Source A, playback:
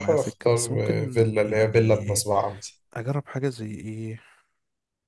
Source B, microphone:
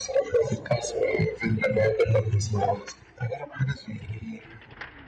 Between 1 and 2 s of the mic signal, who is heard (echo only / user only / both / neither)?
echo only